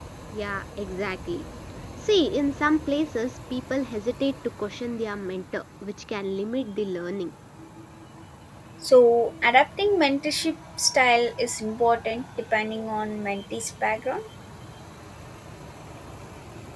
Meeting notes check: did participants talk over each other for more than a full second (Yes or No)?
No